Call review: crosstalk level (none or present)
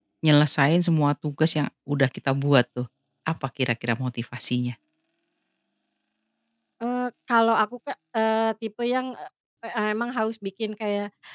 none